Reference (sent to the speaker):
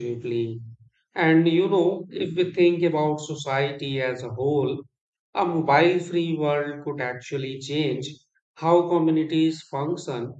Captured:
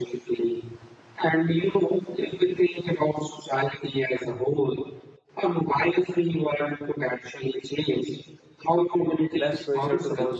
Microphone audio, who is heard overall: both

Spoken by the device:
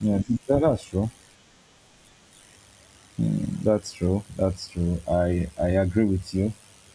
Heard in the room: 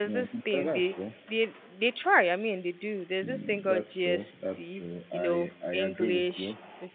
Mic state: both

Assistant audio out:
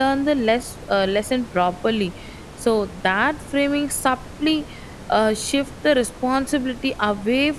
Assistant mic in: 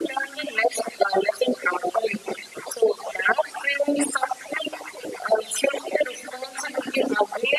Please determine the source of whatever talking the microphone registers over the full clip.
echo only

